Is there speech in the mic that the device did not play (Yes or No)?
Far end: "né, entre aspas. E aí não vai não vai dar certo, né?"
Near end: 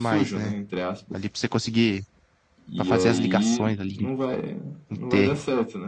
Yes